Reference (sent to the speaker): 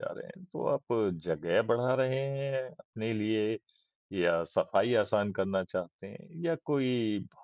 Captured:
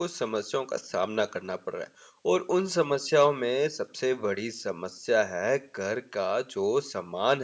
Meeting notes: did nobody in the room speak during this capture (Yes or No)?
No